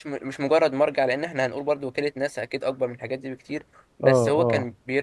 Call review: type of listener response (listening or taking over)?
listening